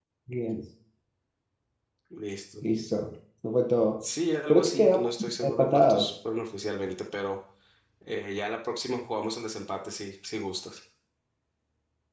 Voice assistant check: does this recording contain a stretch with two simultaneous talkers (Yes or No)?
Yes